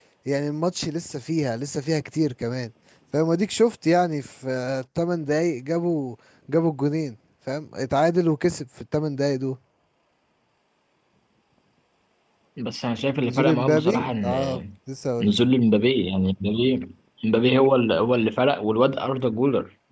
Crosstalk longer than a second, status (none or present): present